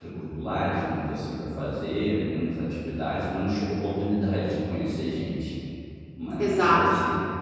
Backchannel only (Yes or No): No